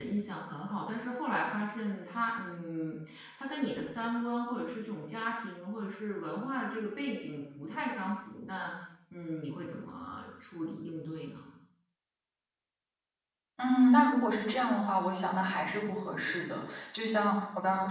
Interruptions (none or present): none